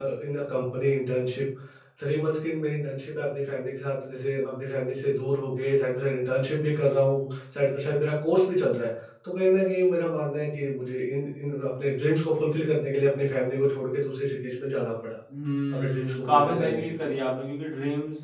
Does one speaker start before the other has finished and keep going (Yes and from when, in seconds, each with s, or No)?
Yes, from 15.7 s